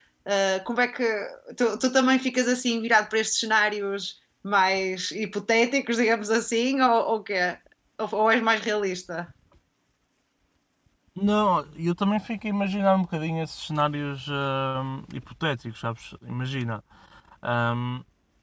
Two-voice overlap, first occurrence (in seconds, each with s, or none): none